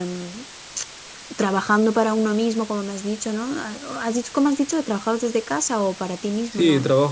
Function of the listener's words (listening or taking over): taking over